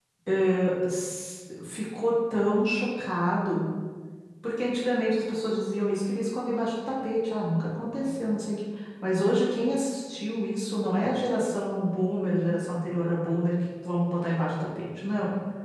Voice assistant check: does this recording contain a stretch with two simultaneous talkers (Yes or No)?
No